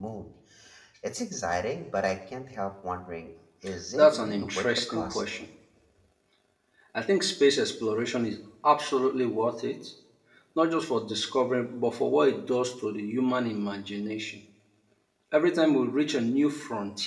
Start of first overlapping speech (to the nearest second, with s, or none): 4 s